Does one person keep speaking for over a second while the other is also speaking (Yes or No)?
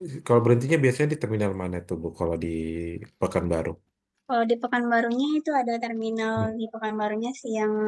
No